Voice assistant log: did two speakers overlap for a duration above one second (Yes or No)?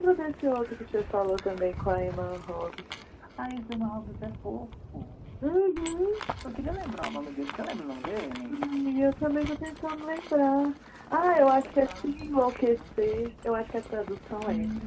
Yes